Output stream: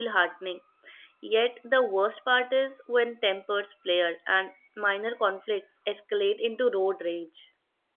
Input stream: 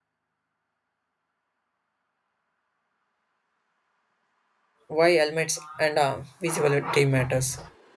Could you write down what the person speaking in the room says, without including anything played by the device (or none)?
why helmets and uh, visibility matters.